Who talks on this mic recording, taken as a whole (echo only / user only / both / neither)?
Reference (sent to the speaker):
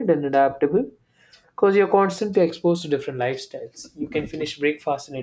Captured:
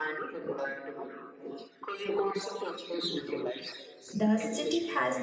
both